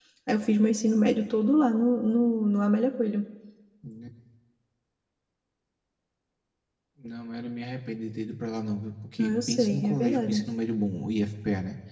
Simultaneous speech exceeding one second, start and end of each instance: 9.2-10.4

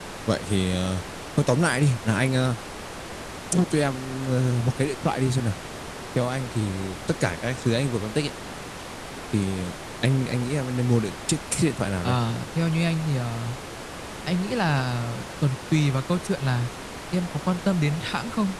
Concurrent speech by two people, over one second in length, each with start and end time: none

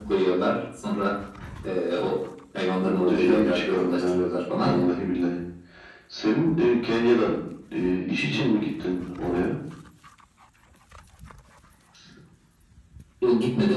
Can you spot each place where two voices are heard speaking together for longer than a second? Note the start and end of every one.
2.8-4.2

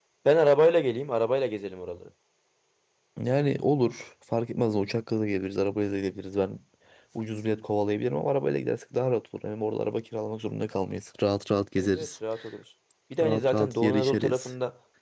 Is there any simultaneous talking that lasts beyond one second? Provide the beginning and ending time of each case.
13.2-14.5

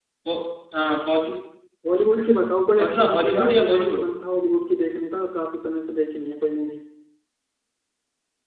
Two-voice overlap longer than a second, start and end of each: 2.8-4.0

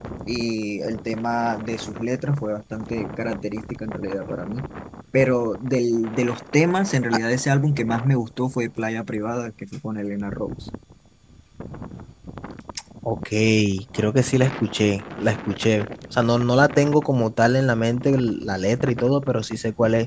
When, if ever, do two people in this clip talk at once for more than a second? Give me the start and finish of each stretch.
none

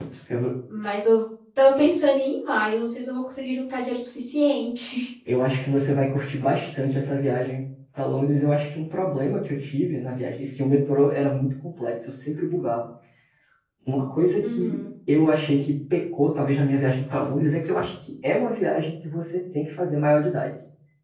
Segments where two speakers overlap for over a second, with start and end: none

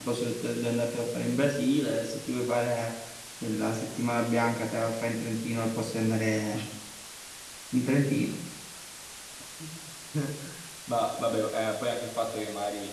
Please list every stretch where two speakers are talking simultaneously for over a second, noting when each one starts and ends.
none

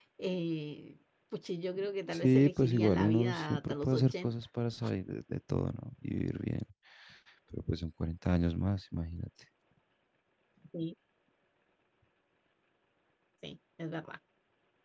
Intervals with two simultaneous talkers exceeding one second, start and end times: 2.1-4.3

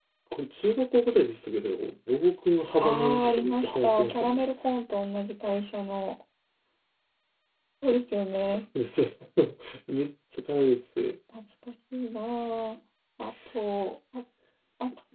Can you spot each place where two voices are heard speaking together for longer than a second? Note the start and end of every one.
2.8-4.4

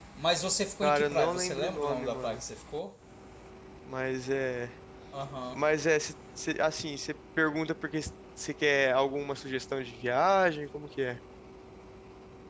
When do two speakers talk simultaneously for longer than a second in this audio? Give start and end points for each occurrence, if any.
0.8-2.4

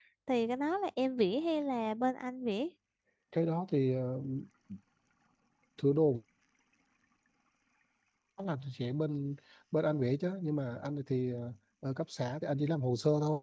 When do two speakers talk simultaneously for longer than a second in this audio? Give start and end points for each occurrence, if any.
none

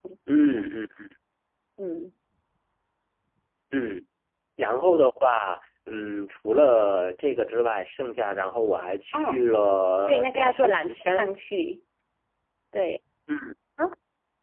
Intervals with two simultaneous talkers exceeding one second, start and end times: 10.1-11.3

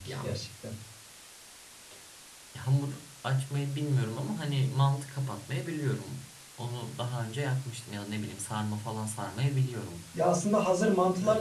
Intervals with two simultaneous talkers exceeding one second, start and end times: none

